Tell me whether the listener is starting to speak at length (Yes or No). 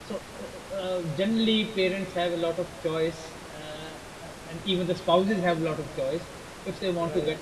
No